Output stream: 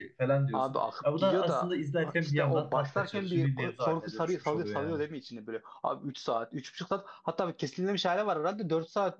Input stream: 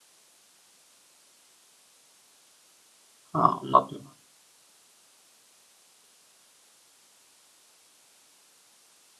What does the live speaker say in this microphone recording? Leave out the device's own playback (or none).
Ha, anladım.